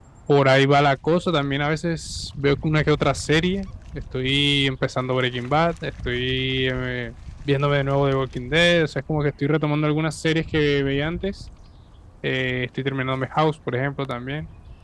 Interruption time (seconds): none

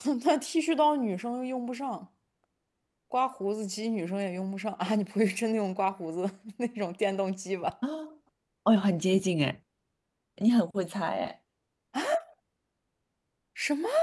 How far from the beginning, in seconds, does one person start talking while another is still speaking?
none

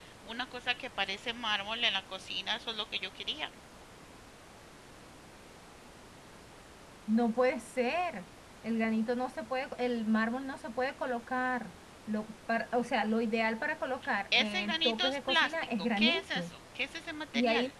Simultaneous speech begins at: 14.3 s

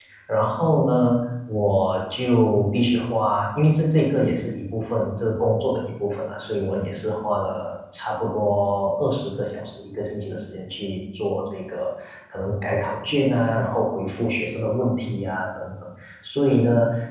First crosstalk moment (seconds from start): none

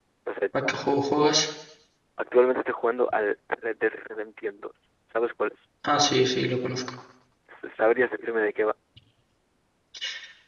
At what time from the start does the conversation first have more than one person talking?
none

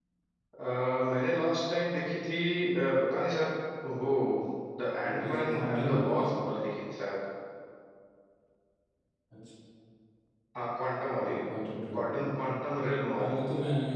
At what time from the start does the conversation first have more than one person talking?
5.0 s

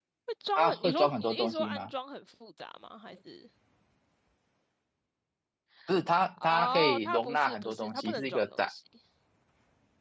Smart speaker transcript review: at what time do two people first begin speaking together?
0.6 s

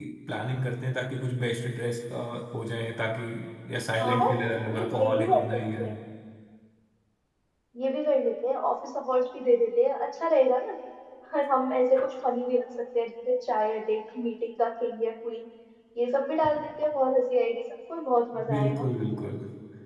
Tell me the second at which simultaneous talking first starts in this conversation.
4.0 s

